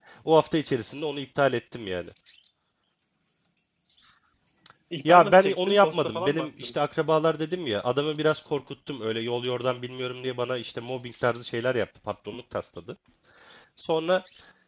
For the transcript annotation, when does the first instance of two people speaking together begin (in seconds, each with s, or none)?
5.0 s